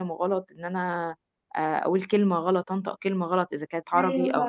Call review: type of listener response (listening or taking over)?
listening